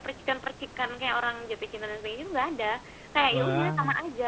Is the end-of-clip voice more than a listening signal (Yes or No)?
No